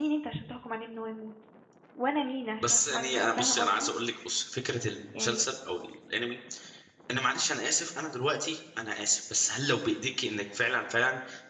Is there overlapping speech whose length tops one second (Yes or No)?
Yes